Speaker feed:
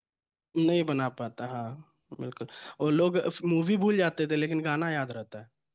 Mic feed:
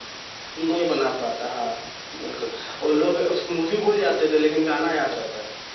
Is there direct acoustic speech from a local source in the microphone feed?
No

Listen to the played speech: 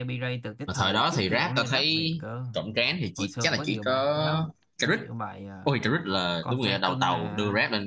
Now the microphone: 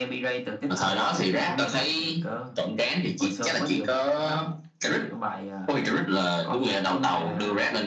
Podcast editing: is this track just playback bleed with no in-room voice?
Yes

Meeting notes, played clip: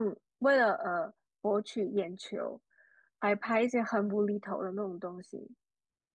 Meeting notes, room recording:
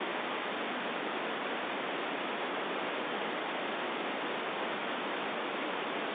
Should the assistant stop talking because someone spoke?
No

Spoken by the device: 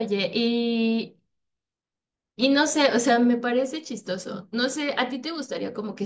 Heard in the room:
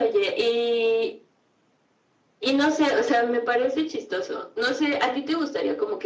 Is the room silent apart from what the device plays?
Yes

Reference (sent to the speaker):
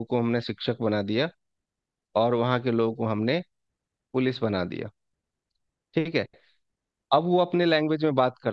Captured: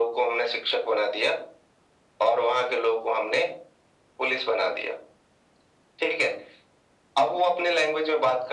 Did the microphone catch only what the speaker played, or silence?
Yes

